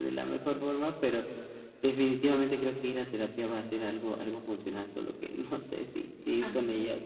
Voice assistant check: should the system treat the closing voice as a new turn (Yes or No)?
Yes